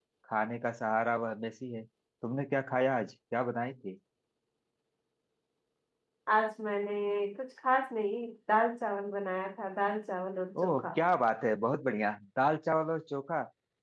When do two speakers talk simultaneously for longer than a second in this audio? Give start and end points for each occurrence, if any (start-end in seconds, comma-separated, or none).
none